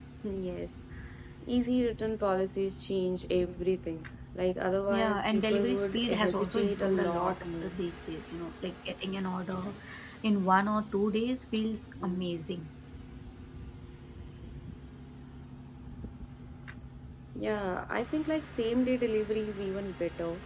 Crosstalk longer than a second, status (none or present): present